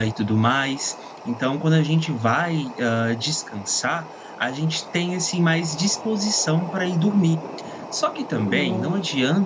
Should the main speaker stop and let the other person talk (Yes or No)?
No